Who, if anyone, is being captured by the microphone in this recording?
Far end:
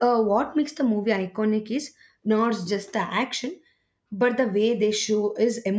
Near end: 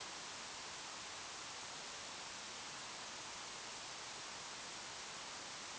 neither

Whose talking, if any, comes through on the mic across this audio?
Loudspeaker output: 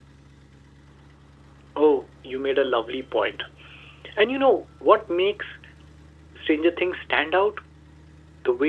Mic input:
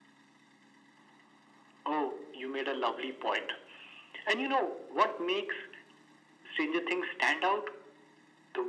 echo only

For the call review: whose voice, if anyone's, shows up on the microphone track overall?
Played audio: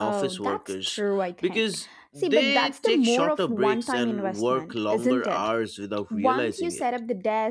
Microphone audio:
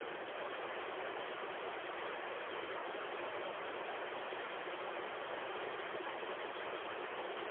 neither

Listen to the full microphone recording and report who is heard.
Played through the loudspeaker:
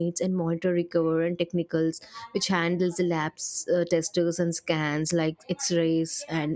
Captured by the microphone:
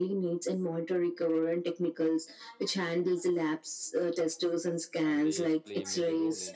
both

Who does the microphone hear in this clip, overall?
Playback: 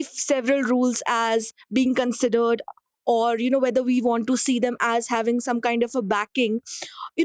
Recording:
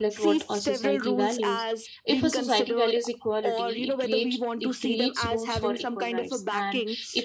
both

